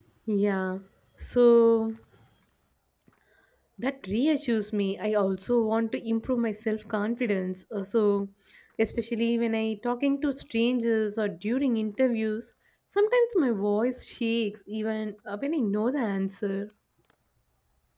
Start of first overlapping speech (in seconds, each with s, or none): none